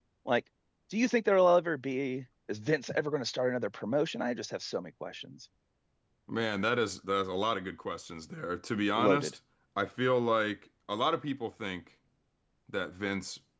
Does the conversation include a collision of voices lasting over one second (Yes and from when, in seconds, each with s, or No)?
No